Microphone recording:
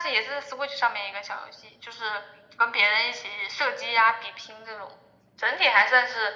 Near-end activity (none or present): none